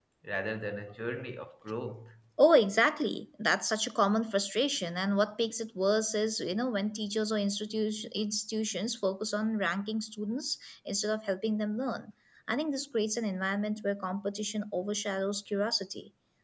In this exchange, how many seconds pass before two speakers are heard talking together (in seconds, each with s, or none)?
none